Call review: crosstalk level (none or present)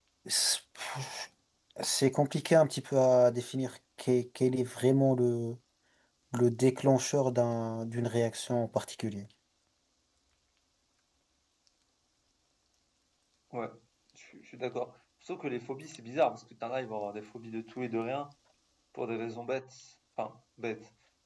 none